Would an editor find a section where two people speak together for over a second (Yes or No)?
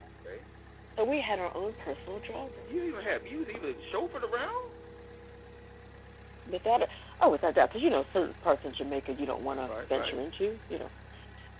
No